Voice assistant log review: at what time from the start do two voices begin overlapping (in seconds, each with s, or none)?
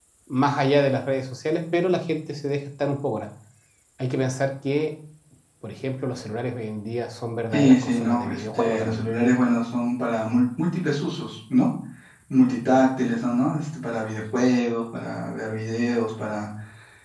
7.5 s